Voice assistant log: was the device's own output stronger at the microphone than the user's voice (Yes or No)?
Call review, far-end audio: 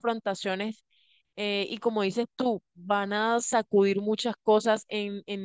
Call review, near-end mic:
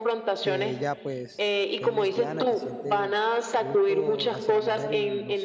Yes